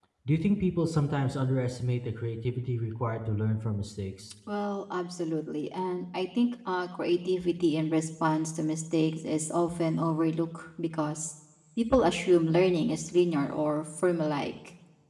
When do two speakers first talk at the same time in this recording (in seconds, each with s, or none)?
none